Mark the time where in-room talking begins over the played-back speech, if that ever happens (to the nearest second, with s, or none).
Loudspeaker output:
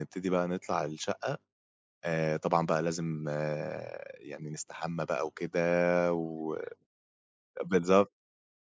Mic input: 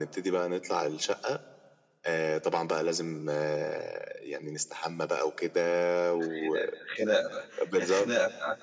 6 s